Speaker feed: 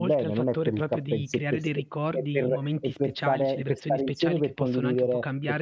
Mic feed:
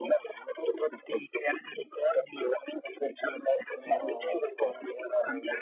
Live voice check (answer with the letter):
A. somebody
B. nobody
A